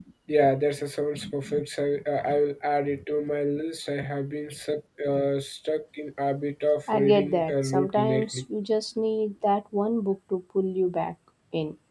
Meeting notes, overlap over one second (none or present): present